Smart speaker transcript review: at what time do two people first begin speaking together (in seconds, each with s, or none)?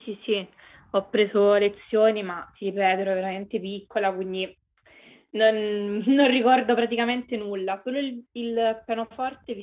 none